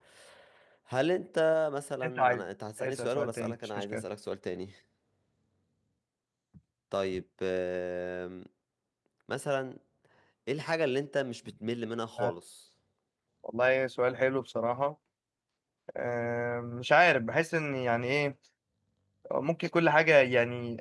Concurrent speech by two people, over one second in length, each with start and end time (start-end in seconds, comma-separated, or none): 2.8-4.0